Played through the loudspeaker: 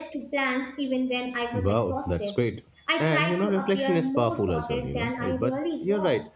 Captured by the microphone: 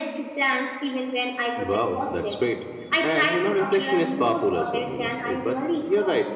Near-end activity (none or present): none